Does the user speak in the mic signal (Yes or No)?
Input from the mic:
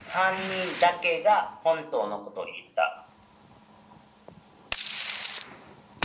No